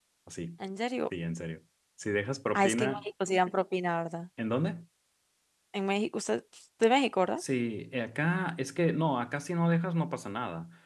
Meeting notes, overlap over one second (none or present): none